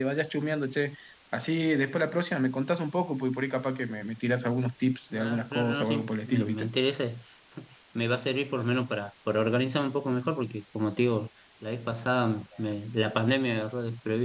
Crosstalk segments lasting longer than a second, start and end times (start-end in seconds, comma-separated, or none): 5.1-6.7